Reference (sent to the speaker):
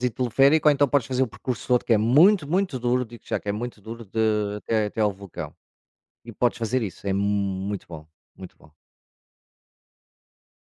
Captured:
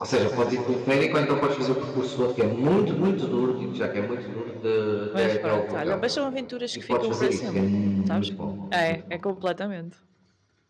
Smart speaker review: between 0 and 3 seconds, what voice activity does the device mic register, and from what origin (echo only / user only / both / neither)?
echo only